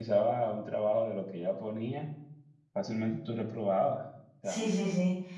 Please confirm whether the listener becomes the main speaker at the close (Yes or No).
Yes